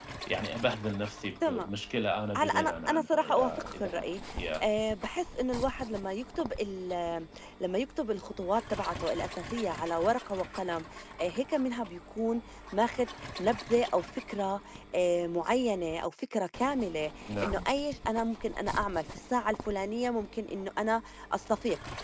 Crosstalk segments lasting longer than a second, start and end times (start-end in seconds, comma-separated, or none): 2.4-3.9